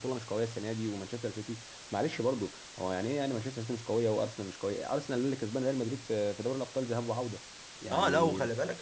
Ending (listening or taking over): taking over